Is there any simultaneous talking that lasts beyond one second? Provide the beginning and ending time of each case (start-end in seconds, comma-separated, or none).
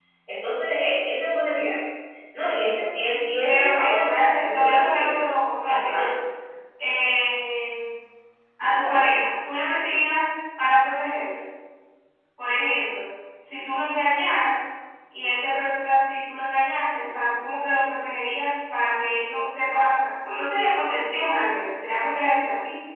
3.5-5.2